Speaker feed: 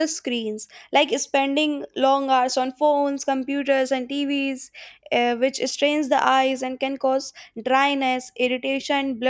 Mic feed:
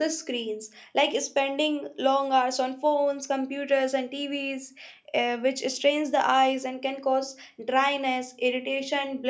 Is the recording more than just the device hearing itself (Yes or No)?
No